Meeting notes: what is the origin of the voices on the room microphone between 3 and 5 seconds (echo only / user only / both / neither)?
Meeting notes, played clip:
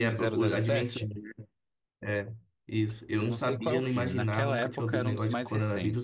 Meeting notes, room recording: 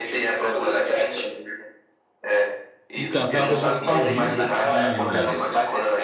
both